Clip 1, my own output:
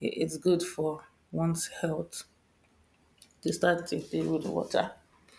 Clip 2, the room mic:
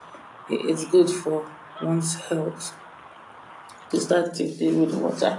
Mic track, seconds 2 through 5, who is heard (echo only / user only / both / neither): echo only